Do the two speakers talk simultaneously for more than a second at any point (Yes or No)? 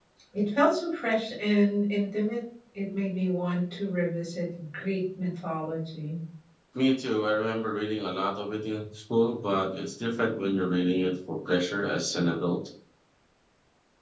No